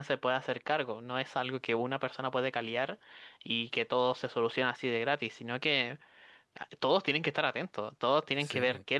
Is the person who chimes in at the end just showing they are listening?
Yes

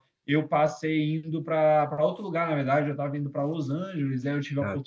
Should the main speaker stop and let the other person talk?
No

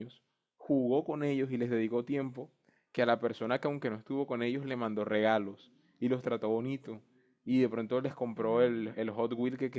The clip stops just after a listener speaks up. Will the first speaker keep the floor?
Yes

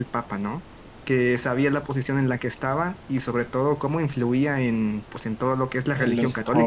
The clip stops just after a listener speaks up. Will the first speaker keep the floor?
No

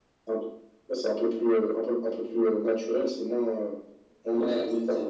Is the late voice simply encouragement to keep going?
No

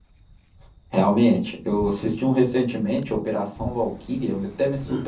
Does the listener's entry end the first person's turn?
No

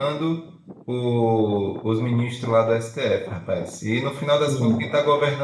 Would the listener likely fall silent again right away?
Yes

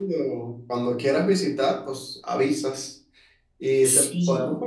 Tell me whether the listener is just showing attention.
Yes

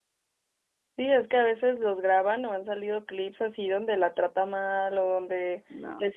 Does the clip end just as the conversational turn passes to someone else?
No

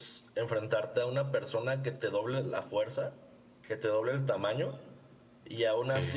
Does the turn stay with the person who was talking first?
Yes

